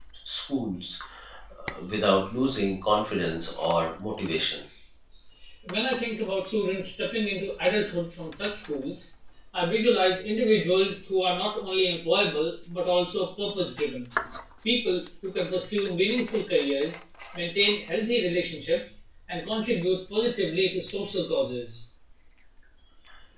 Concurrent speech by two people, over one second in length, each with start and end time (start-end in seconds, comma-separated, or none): none